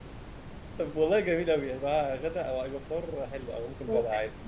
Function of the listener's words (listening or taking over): taking over